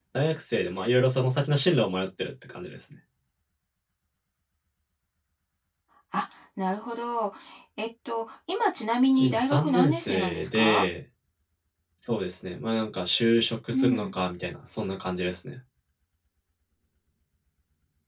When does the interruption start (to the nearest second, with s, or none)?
9 s